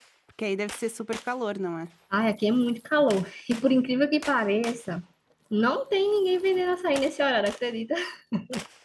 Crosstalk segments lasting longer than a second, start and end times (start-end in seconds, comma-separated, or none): none